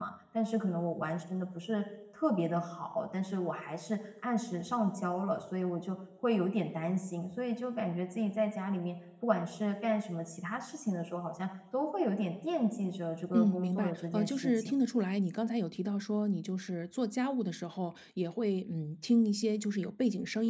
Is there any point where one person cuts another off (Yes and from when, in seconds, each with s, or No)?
Yes, from 13.3 s